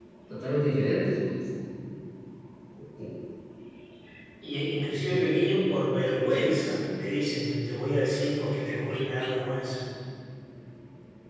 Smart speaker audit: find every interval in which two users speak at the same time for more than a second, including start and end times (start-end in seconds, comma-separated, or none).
none